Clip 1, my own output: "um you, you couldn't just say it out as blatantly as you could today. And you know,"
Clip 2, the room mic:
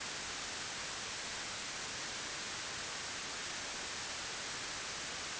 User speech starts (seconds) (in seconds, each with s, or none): none